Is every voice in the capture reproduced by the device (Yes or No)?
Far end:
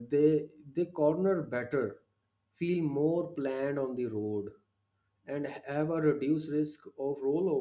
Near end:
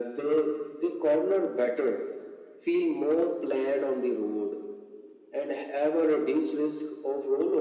Yes